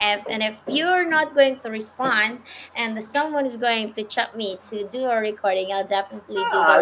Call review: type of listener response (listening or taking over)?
taking over